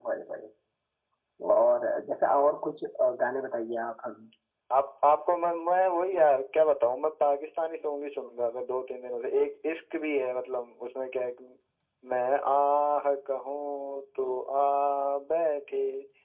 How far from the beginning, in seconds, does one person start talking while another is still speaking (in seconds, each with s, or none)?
none